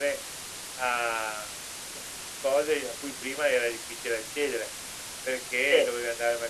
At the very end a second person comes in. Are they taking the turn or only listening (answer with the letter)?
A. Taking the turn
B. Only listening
B